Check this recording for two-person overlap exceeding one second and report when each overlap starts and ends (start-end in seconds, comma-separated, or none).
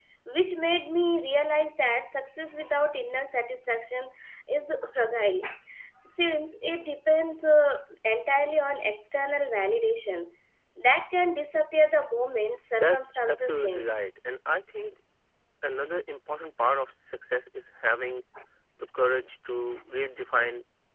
12.7-14.0